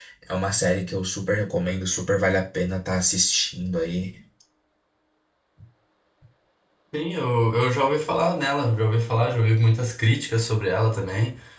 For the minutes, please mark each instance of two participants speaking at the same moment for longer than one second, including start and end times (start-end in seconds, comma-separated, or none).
none